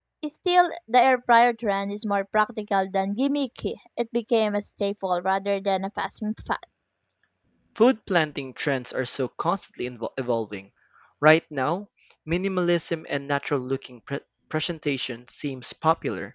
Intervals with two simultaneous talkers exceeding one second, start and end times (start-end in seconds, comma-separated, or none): none